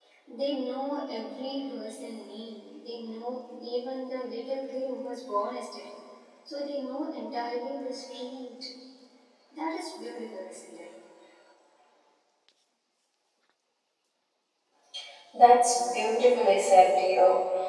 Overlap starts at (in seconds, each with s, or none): none